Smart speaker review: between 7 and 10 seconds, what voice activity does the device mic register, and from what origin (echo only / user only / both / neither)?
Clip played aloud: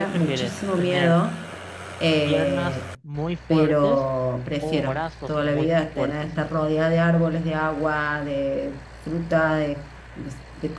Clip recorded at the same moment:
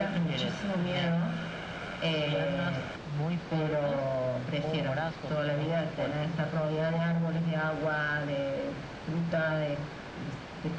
echo only